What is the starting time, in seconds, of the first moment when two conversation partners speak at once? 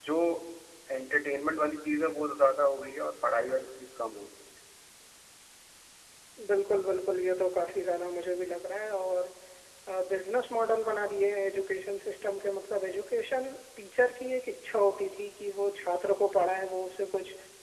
none

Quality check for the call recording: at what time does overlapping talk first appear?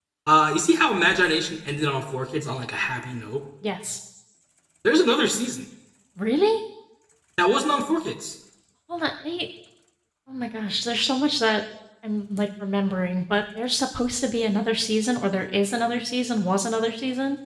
none

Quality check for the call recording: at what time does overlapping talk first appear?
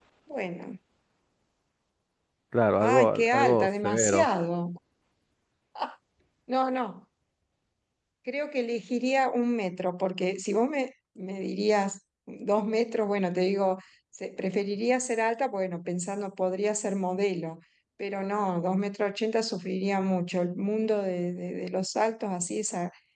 2.8 s

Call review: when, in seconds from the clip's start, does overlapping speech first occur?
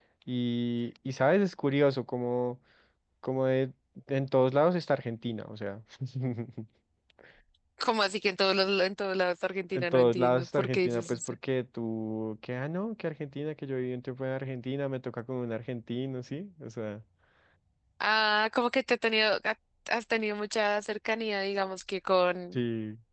9.7 s

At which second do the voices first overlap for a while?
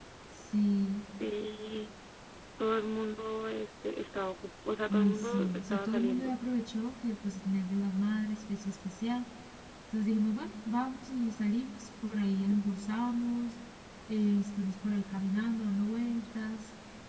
4.9 s

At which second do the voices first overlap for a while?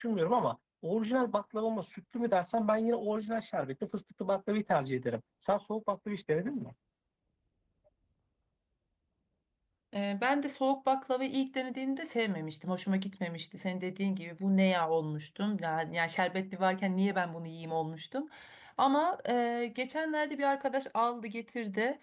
none

